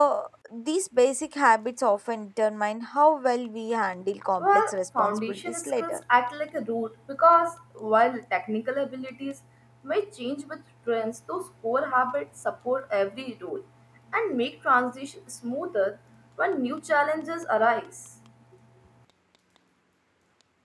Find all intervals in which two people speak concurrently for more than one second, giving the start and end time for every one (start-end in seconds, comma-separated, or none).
4.4-6.0